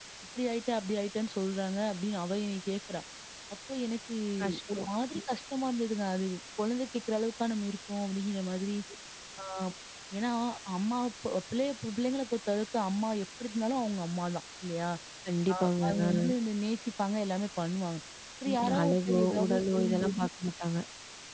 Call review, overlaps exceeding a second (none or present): present